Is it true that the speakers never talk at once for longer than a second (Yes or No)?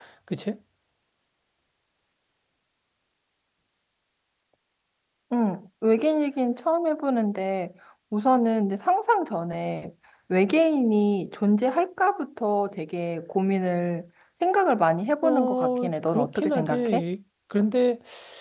No